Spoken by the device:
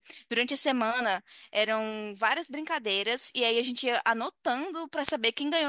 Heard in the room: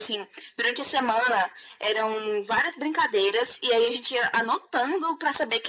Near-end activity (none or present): none